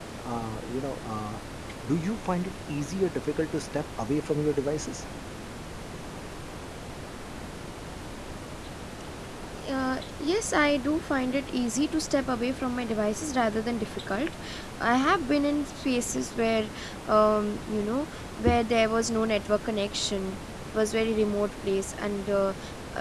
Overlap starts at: none

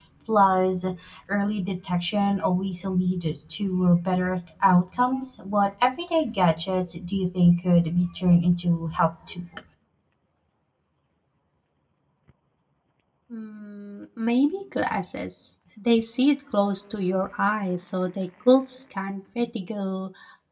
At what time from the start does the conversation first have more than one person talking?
none

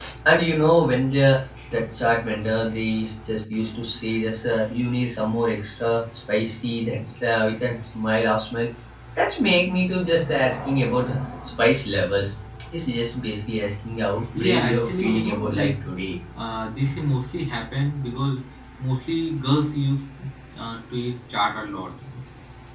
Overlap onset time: 14.3 s

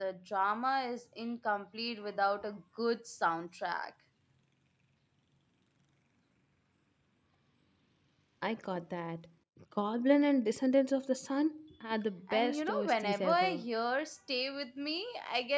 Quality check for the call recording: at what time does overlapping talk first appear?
12.3 s

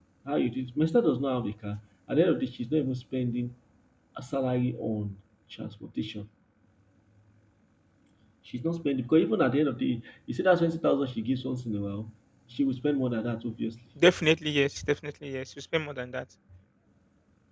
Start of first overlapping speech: none

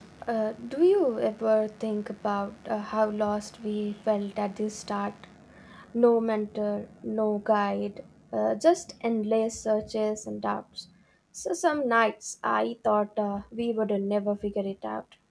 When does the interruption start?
none

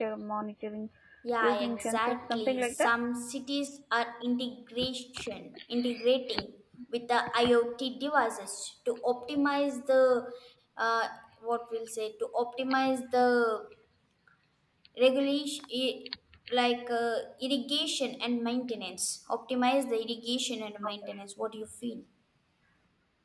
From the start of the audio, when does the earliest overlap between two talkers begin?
1.4 s

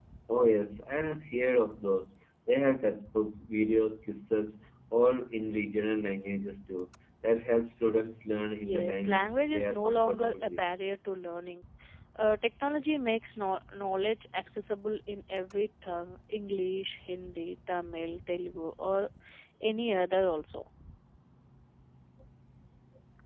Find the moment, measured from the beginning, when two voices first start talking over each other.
8.6 s

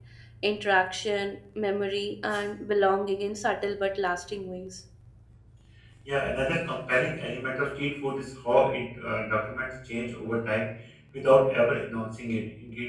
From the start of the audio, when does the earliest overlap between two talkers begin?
none

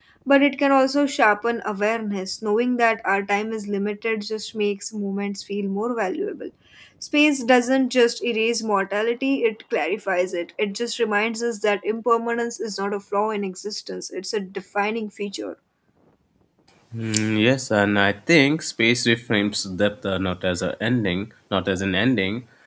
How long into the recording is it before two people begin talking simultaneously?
none

